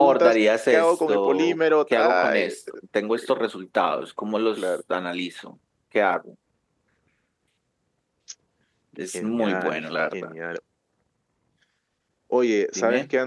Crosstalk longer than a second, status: present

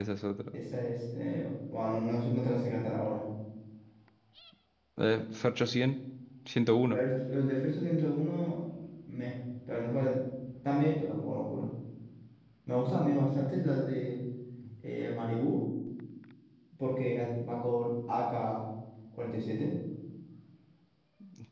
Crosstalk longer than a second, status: none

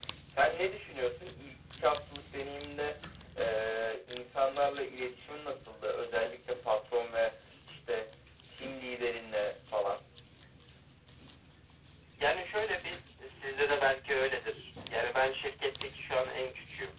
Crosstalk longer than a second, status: none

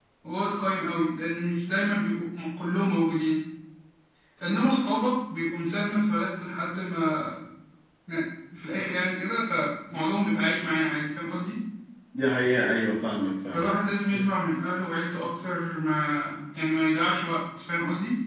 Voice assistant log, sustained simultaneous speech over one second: none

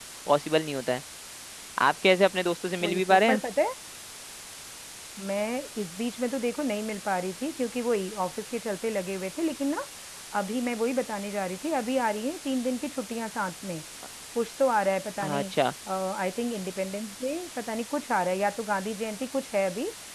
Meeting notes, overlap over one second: none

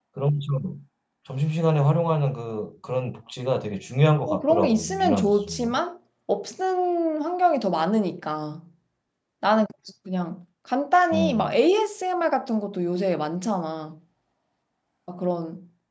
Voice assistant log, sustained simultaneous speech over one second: present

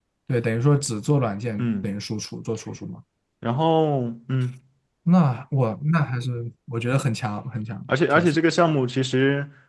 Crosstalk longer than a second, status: none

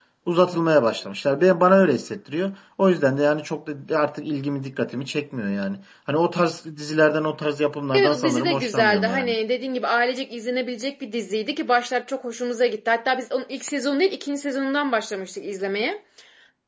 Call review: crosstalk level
present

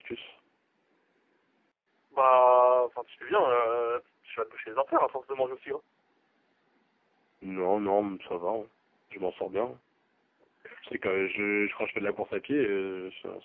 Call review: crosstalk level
none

